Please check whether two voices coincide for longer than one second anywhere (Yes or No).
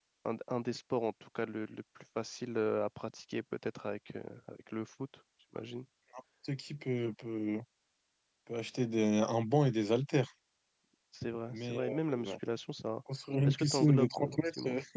Yes